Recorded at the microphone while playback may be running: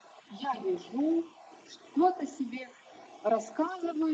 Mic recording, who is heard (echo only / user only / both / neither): echo only